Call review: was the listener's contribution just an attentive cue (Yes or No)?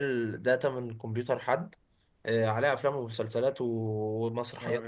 Yes